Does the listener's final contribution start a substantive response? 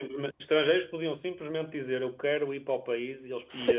Yes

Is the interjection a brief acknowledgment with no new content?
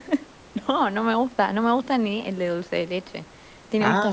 No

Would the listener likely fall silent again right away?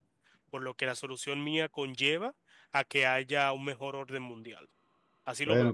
No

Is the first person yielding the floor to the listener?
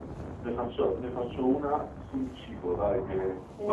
Yes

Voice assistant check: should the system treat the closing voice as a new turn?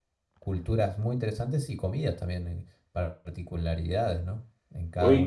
Yes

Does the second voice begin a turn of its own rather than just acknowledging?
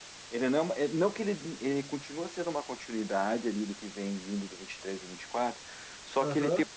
No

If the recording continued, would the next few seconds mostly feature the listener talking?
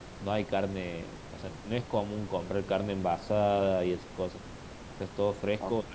Yes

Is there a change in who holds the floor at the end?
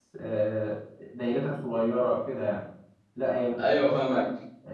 No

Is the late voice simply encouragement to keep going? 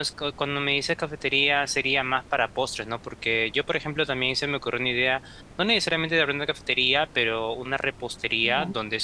Yes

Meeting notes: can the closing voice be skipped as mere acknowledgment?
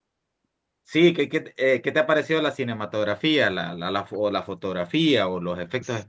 No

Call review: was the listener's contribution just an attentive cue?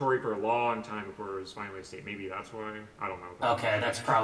No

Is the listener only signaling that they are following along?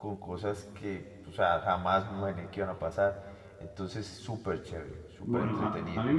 No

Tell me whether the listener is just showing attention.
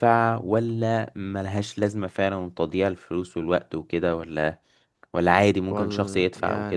No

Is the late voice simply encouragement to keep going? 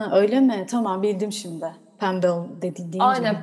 No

